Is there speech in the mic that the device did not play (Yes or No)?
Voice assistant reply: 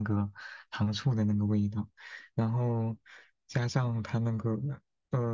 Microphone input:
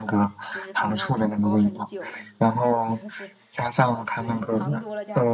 Yes